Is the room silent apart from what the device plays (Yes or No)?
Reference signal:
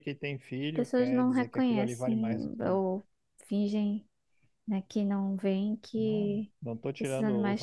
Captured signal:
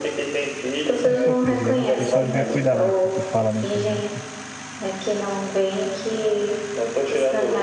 No